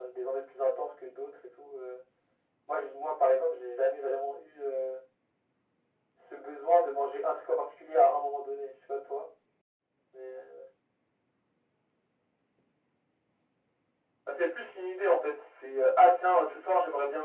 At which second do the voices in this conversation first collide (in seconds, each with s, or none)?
none